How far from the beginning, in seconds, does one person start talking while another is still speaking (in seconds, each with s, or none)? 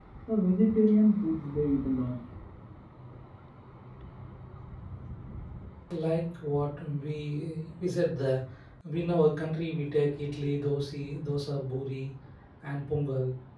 none